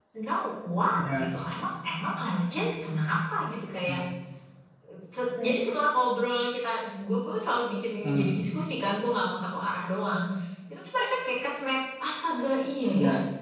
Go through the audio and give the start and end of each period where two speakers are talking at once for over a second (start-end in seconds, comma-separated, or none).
none